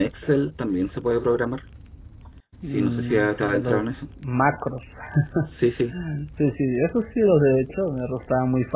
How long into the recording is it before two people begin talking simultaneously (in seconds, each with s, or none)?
2.7 s